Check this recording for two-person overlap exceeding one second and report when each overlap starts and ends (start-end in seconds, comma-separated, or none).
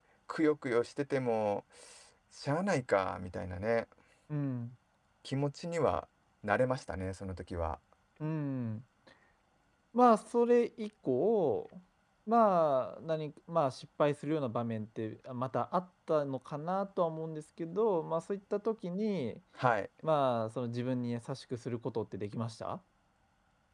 none